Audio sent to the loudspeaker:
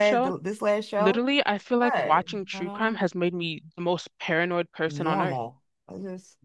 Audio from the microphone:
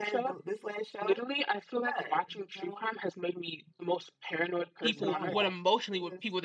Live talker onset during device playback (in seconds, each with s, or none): 4.8 s